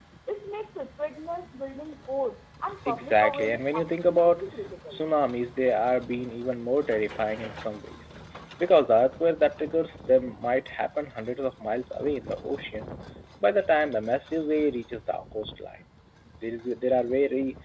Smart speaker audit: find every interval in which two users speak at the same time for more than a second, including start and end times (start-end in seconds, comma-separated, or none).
2.9-4.4